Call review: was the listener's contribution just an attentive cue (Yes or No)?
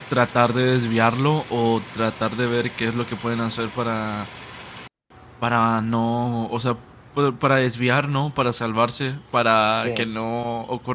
Yes